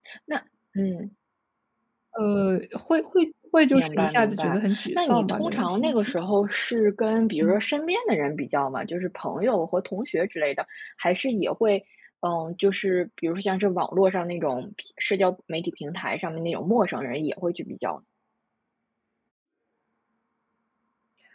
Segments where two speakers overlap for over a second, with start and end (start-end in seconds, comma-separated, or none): 3.7-6.1